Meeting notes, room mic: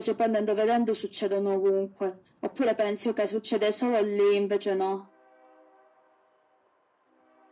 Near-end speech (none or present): none